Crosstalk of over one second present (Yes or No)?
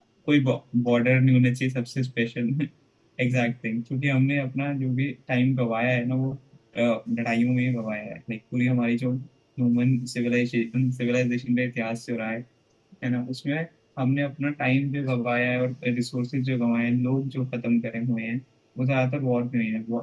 No